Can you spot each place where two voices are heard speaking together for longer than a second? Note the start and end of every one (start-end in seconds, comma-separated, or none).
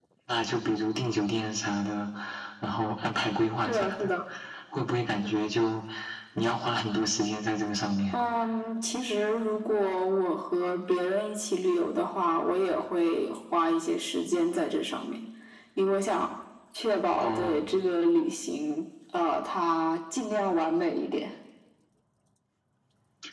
none